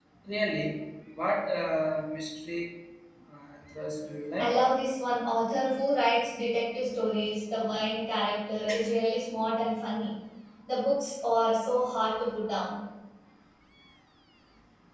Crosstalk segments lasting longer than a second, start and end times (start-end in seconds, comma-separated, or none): none